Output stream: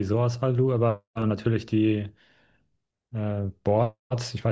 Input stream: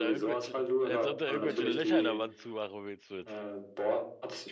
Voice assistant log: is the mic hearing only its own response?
No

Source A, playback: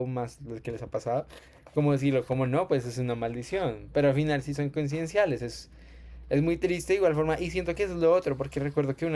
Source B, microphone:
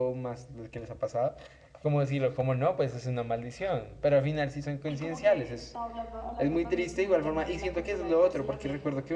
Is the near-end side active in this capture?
Yes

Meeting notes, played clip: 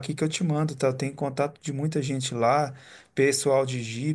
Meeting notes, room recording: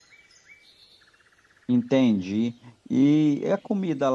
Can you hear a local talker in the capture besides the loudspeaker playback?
Yes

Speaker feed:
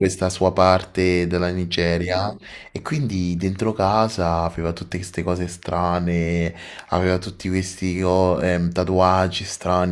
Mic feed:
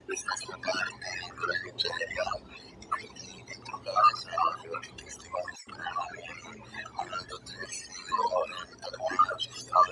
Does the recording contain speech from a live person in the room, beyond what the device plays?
No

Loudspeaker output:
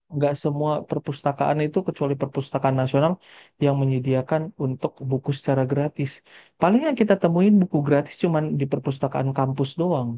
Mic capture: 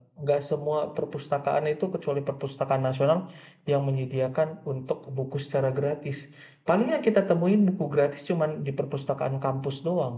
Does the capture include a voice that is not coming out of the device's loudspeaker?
No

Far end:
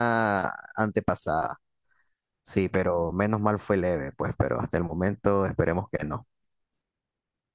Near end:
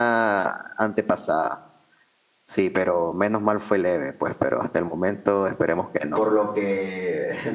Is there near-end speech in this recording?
Yes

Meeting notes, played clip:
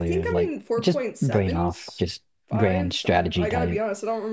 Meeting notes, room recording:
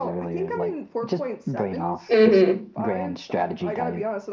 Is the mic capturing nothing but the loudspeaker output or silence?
No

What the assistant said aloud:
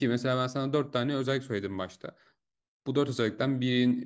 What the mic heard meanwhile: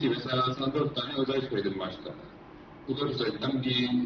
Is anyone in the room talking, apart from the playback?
No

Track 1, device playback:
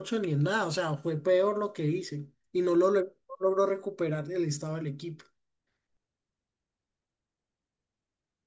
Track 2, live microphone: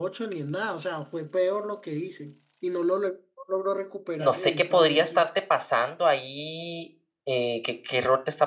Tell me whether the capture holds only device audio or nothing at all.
No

